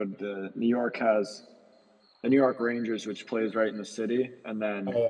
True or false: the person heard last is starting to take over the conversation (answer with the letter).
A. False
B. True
A